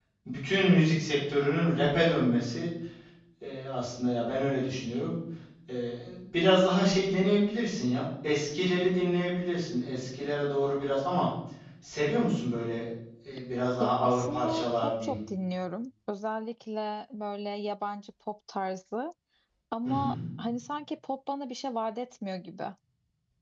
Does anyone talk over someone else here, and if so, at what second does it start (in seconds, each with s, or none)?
13.8 s